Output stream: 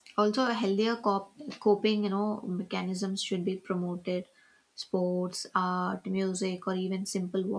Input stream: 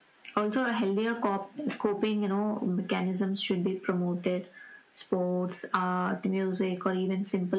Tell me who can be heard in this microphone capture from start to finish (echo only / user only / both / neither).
echo only